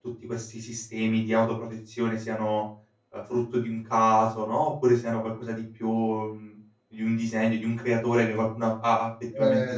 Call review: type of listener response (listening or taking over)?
taking over